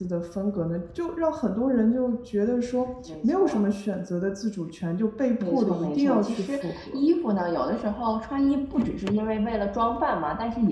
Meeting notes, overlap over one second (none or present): present